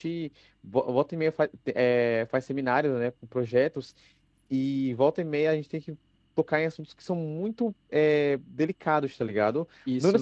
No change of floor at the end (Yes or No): No